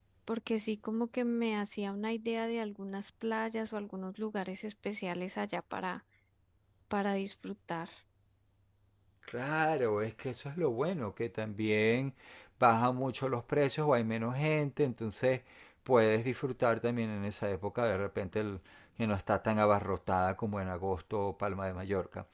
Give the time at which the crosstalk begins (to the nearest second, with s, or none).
none